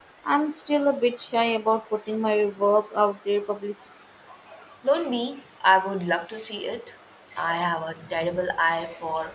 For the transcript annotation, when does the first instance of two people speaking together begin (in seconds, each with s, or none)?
none